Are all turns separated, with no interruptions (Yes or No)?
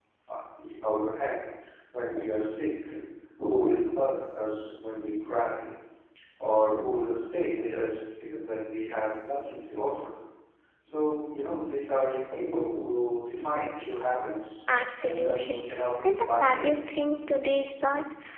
No